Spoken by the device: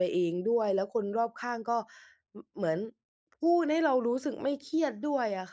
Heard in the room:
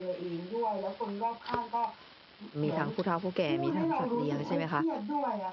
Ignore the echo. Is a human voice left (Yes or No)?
Yes